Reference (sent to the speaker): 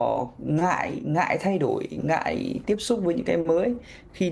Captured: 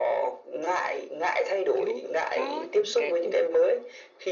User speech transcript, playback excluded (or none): kiểu có những cái cuộc